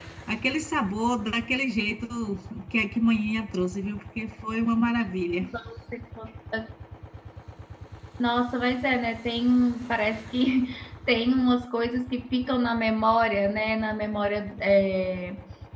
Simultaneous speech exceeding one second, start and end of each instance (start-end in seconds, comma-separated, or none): none